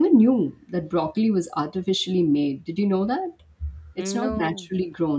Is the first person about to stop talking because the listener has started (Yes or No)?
No